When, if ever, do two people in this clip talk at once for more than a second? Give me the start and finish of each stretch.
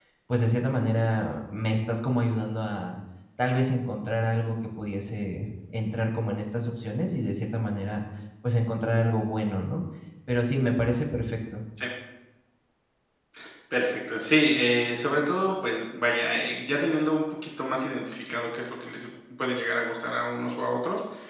none

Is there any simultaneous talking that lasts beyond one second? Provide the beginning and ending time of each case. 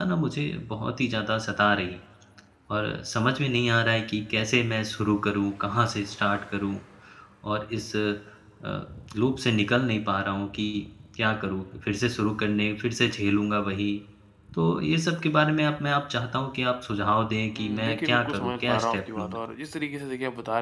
17.6-19.4

